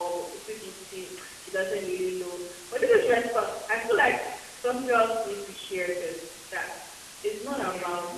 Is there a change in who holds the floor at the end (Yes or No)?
No